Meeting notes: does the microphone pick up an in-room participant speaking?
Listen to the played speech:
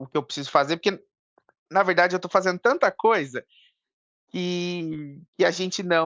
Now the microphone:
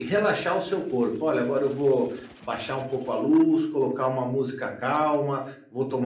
Yes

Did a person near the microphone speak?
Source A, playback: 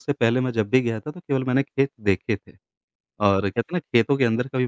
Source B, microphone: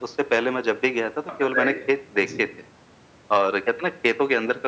Yes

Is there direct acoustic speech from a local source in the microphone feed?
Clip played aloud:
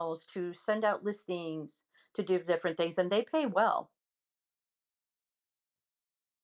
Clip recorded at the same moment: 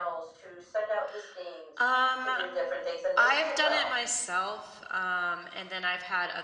Yes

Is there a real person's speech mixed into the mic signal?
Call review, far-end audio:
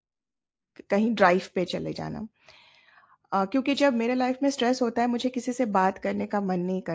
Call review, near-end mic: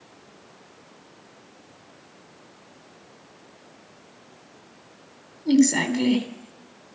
Yes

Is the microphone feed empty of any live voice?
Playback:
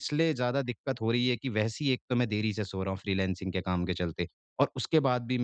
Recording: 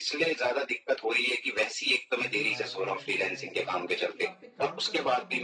No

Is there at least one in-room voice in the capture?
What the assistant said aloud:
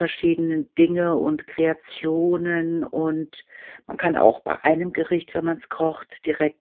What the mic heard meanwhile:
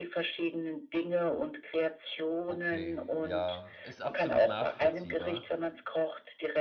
Yes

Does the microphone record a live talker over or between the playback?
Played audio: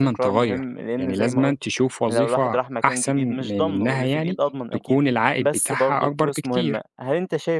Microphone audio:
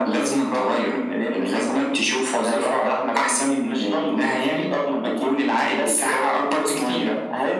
No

